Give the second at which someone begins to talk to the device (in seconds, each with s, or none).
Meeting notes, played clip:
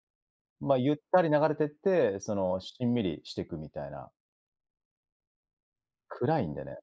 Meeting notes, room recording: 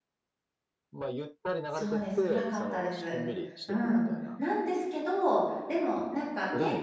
1.7 s